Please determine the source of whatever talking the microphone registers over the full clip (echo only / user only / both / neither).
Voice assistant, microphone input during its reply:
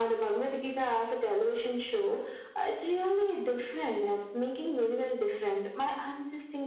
echo only